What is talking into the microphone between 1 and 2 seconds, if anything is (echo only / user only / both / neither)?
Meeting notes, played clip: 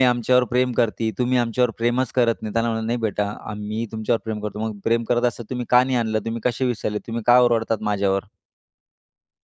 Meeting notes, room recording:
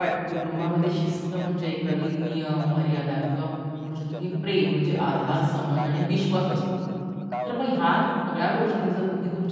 both